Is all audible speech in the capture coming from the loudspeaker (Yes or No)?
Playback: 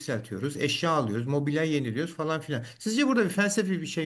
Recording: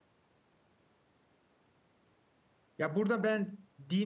No